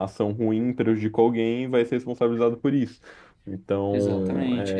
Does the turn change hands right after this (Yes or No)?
Yes